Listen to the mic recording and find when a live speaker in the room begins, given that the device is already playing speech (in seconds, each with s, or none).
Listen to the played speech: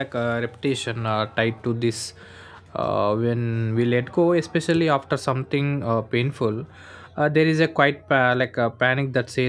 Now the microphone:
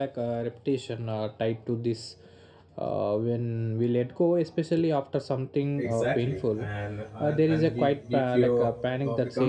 5.8 s